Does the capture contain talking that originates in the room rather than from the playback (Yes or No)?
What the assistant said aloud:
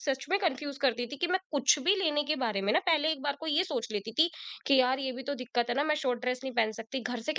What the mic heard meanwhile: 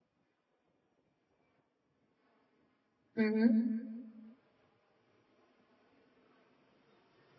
Yes